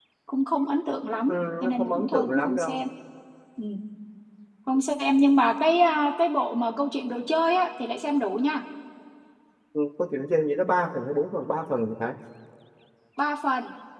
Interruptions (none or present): present